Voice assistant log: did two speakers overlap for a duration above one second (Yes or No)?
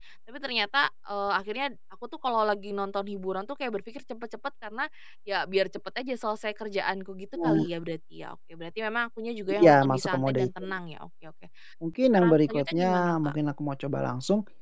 Yes